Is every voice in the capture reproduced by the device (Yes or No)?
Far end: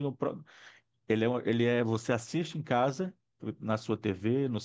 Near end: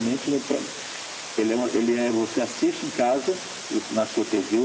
Yes